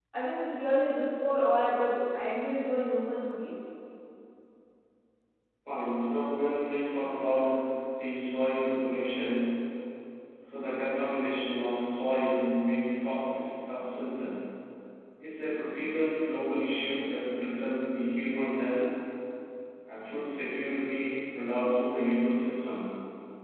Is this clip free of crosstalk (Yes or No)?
Yes